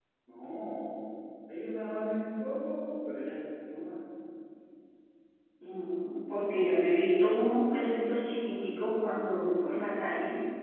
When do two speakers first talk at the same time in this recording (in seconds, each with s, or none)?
none